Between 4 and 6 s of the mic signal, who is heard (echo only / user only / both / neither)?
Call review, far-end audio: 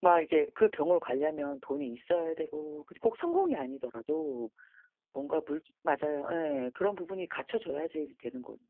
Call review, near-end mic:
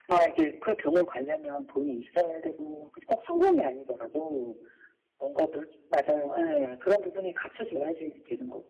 echo only